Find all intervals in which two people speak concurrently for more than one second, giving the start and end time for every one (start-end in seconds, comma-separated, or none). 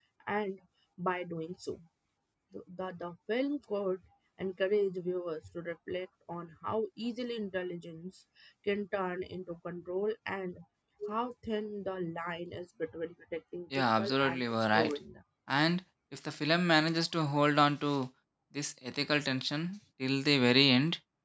13.8-15.0